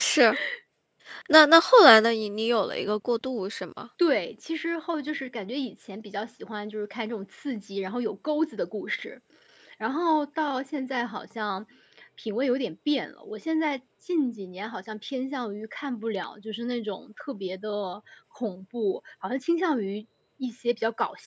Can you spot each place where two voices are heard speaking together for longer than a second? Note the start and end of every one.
none

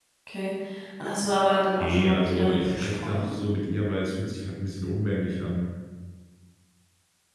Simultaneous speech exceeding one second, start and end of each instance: 1.8-3.4

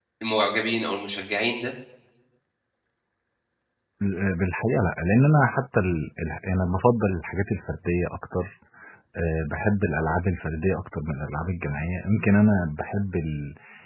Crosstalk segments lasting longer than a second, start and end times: none

